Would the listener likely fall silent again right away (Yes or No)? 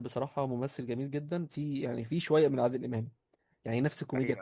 Yes